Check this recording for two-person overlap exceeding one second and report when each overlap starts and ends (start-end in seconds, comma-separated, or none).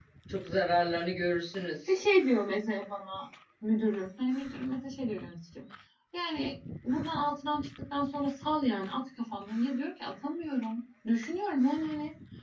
none